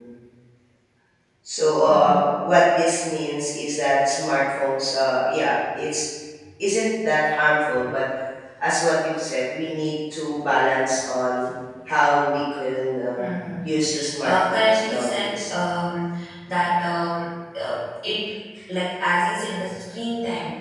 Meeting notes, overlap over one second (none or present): present